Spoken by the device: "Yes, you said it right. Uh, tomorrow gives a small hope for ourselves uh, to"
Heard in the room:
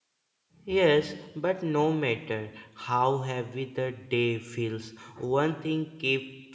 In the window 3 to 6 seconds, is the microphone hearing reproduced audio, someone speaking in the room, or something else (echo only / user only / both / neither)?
user only